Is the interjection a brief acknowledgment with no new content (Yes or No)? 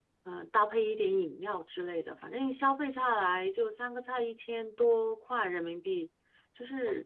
No